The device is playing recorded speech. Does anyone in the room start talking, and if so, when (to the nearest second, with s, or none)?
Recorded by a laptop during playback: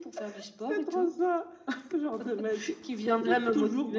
none